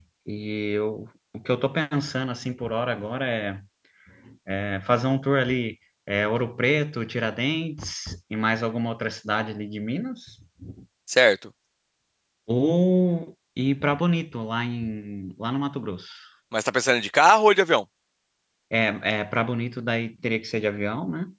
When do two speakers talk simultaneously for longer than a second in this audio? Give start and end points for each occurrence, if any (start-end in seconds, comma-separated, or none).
none